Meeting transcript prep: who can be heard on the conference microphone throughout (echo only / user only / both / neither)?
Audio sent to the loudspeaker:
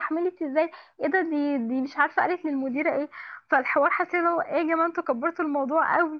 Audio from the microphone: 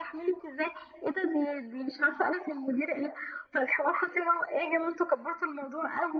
echo only